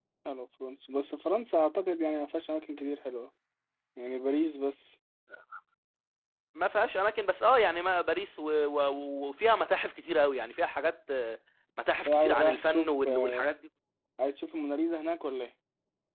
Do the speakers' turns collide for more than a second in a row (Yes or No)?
Yes